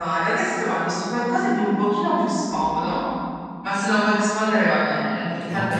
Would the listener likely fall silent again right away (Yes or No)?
Yes